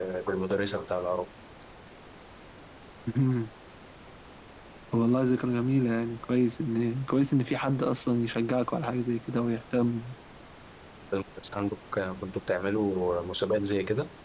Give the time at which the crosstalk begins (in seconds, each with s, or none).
none